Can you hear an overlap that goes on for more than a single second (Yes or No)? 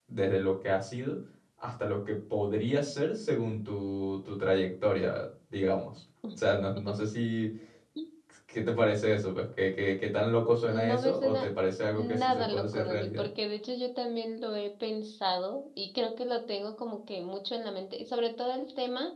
Yes